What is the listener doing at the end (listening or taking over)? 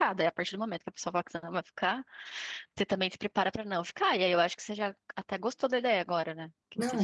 taking over